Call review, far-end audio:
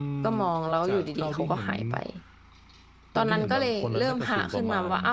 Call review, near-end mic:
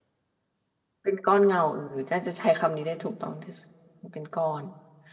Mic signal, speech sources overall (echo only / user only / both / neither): user only